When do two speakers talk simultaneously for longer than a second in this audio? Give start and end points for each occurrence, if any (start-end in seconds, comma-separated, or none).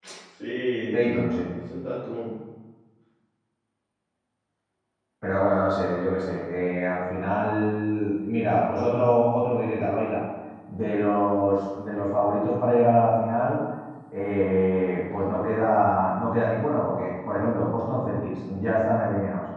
none